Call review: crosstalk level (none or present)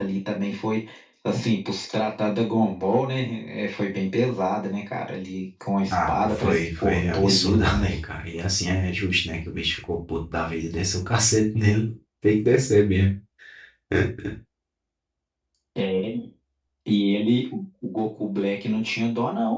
present